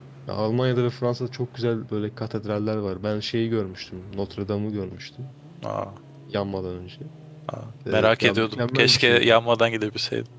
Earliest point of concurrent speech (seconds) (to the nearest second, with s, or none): 8 s